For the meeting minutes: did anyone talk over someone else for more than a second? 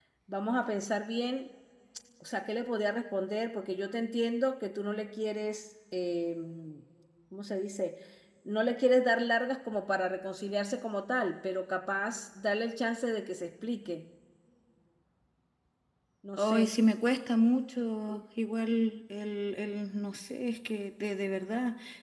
No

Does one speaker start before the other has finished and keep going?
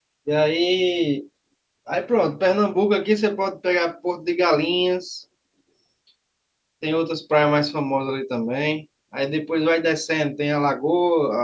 No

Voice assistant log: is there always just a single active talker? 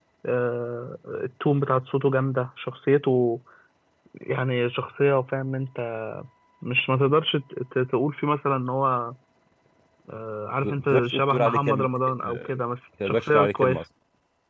No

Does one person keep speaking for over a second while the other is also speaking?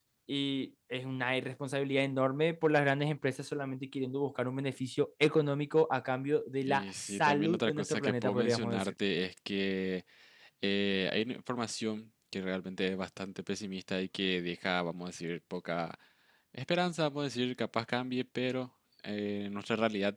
Yes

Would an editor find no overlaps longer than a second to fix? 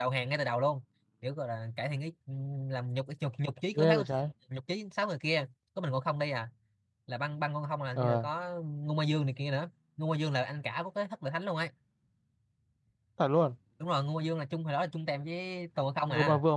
Yes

